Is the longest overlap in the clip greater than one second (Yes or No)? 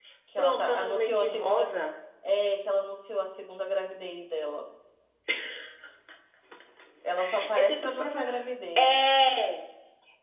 Yes